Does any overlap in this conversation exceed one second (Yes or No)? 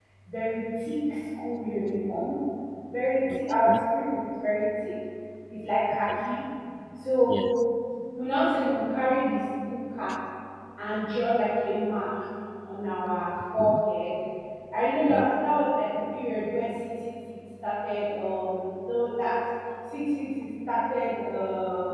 No